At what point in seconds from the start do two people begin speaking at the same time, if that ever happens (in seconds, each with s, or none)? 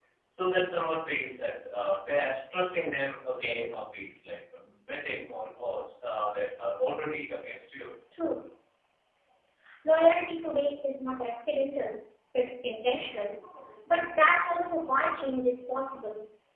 none